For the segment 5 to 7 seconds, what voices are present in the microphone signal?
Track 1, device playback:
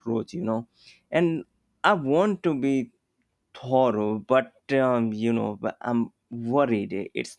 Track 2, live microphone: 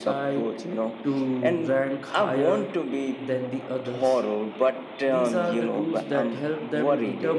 both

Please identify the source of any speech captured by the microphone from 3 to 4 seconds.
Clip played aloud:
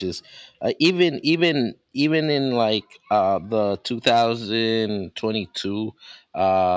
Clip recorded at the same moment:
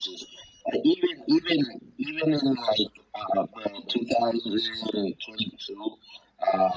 echo only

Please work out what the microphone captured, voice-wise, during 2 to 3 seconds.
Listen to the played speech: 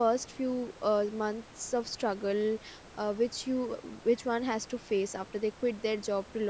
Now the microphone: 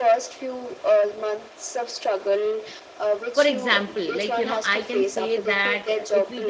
echo only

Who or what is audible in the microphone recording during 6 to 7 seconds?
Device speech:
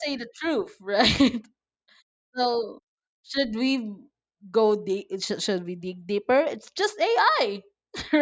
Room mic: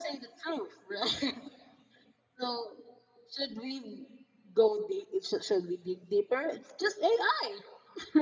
echo only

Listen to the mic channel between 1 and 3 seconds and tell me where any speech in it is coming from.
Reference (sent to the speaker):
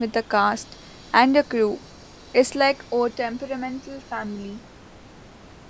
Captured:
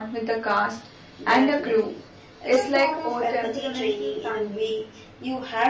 both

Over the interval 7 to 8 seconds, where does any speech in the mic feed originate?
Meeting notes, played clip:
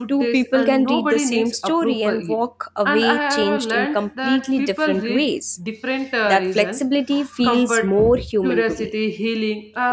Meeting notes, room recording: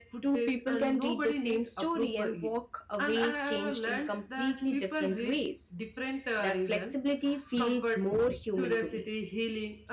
echo only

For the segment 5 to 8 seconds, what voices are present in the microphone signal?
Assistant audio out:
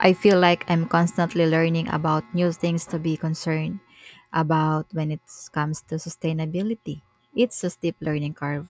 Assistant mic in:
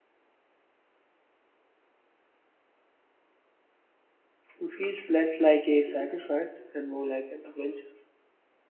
user only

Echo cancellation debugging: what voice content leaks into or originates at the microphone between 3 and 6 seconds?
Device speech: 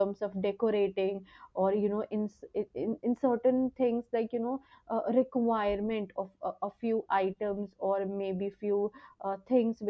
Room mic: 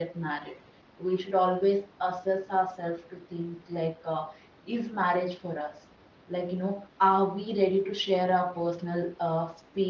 user only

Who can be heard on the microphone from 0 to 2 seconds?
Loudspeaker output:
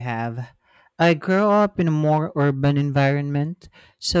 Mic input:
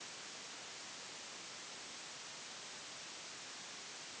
neither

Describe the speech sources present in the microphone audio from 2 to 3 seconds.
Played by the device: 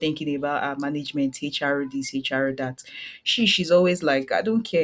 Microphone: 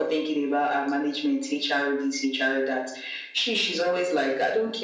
echo only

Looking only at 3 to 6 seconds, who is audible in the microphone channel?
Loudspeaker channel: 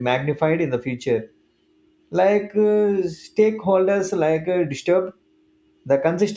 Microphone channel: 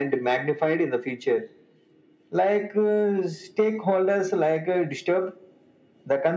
echo only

